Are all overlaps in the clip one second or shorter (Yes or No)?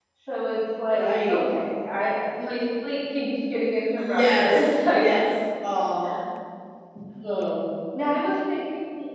No